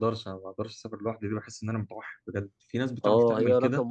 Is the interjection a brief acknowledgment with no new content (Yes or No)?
No